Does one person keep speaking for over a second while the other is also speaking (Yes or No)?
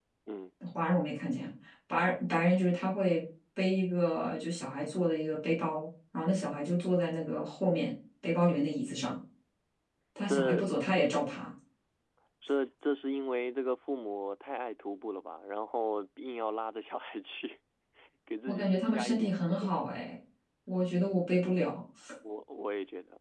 Yes